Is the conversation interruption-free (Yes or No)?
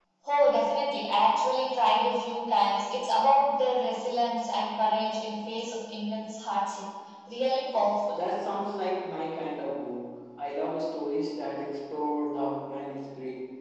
Yes